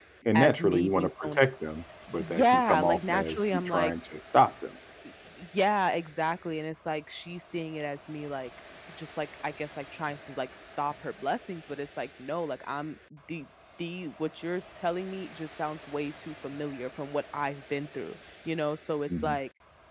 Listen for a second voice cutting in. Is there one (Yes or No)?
Yes